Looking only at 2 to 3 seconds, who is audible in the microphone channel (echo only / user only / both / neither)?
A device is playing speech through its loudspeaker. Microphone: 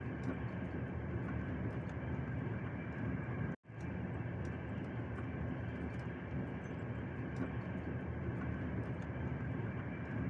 neither